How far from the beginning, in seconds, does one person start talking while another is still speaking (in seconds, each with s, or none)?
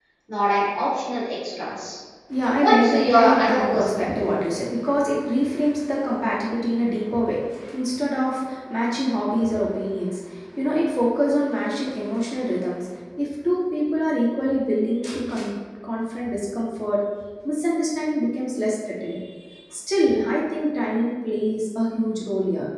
2.6 s